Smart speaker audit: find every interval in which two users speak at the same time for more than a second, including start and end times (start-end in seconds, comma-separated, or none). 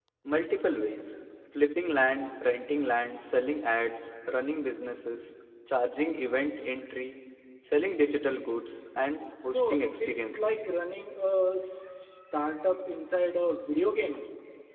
9.4-10.7